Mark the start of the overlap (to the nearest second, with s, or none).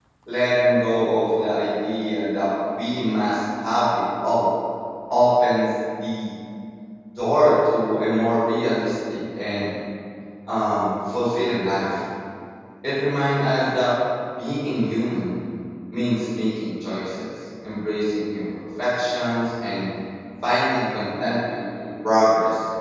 none